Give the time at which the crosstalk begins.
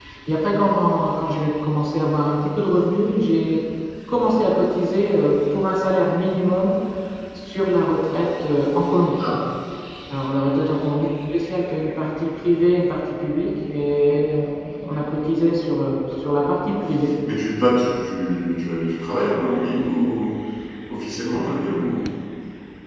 none

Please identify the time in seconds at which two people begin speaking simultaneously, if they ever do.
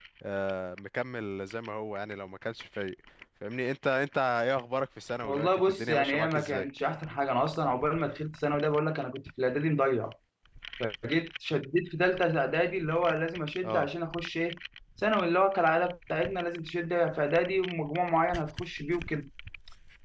5.2 s

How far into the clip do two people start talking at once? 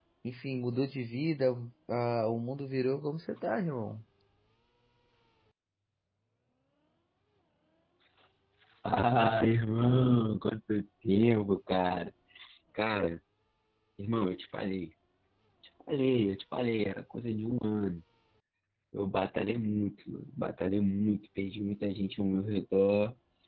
none

